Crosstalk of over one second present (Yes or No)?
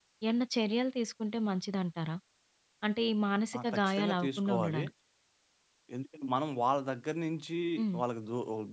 Yes